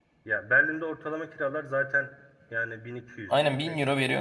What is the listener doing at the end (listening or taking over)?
taking over